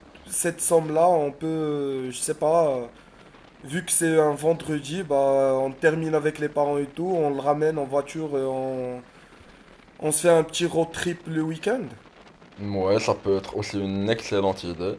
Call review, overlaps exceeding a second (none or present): none